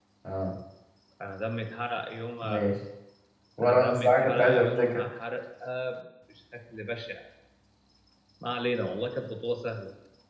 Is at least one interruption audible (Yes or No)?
Yes